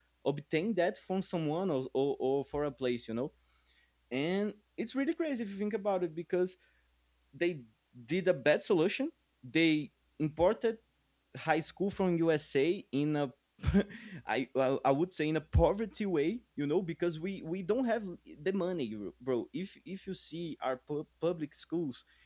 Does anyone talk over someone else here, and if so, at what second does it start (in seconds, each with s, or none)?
none